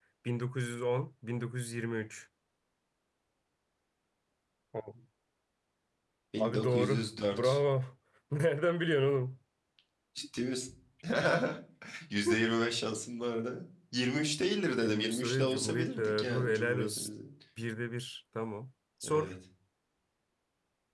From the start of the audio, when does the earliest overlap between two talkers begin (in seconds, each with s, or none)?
6.4 s